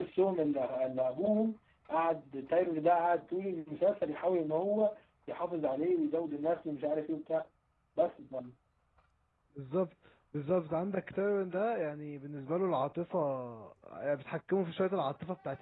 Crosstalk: none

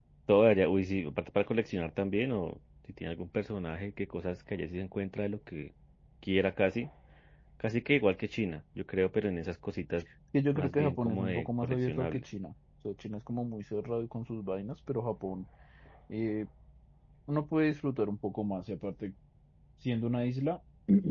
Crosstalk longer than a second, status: present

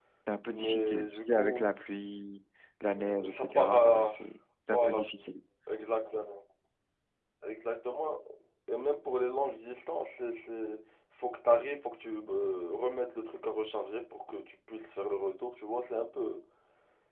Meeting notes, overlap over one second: present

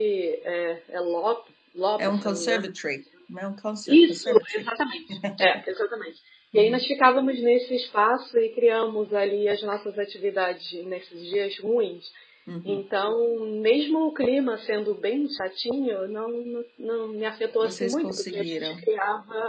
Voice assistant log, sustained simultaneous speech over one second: present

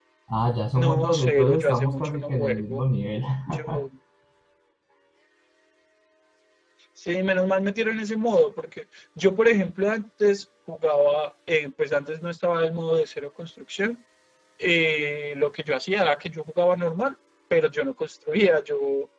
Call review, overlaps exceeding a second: present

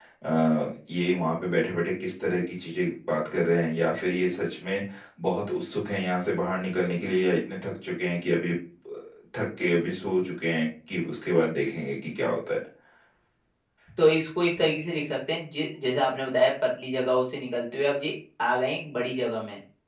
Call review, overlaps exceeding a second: none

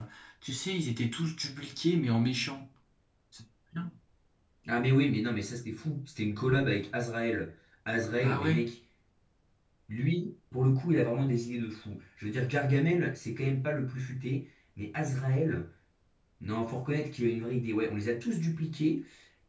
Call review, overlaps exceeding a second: none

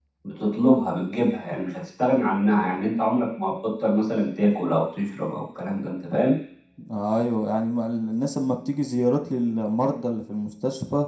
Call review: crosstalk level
none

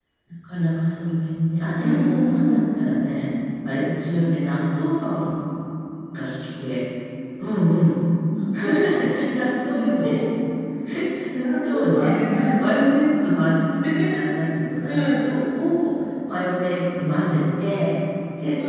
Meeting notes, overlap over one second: present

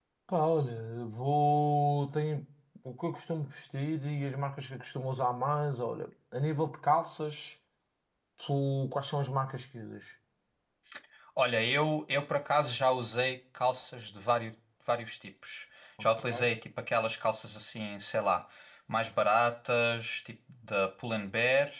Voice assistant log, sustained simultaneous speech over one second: none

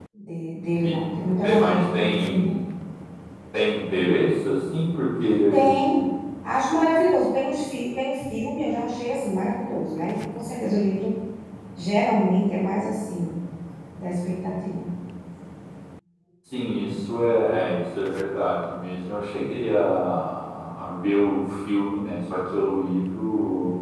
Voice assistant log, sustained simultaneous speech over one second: present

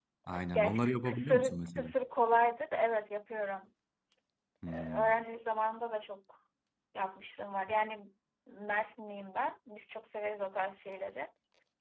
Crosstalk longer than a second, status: present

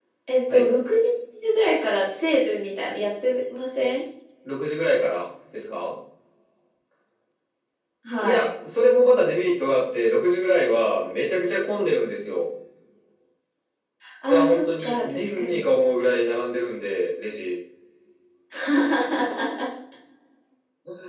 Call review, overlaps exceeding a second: present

